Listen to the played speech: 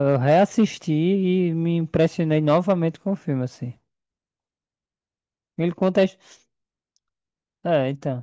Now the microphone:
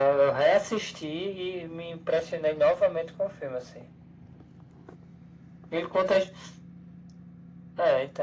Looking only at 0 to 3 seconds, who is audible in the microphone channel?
echo only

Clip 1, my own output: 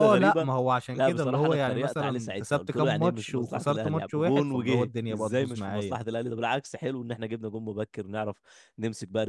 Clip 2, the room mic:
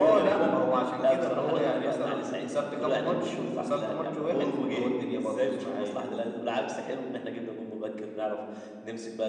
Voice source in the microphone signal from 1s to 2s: echo only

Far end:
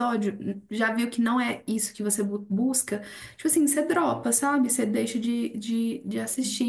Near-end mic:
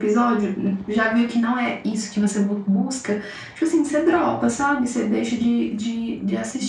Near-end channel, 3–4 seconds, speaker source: echo only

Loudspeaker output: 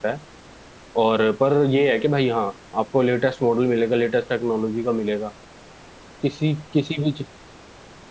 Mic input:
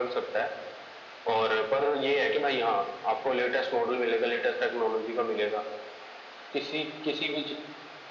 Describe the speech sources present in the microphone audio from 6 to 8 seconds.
echo only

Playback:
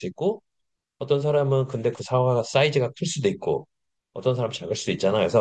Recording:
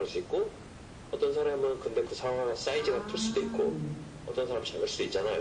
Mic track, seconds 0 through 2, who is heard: echo only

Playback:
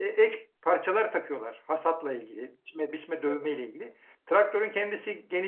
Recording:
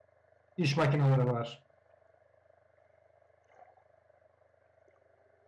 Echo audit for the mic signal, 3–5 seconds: neither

